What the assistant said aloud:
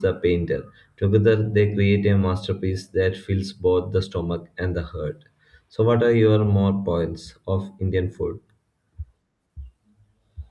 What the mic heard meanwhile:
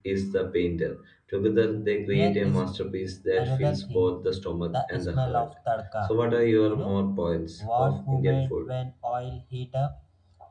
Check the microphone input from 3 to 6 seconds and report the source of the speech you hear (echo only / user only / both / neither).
both